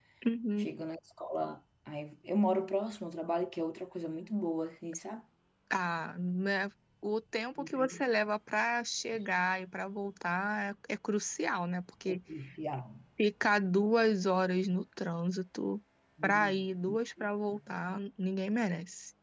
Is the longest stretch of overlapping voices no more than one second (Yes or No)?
Yes